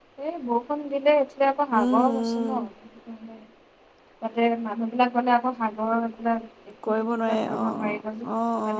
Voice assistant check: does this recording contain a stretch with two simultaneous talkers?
Yes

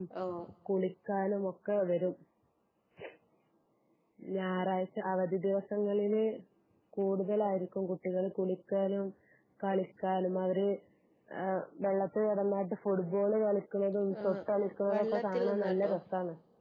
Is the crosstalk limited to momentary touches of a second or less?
No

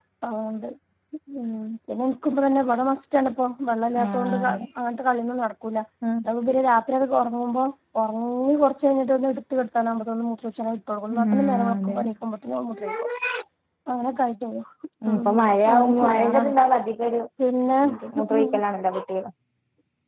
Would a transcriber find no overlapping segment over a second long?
No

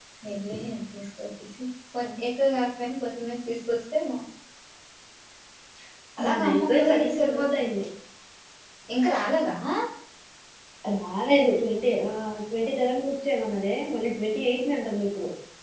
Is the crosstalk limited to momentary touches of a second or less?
No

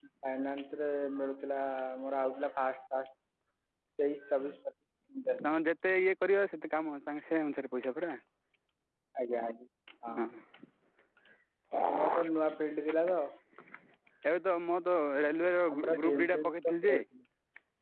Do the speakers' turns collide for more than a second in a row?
Yes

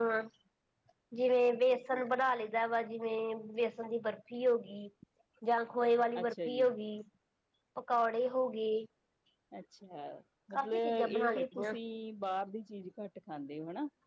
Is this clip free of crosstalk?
No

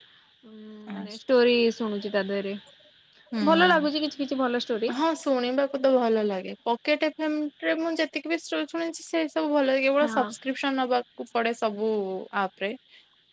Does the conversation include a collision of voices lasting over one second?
No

